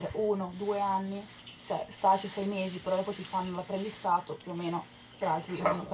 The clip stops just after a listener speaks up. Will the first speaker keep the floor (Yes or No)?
Yes